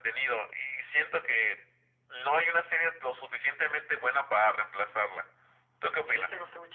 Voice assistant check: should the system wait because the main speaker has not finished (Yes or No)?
No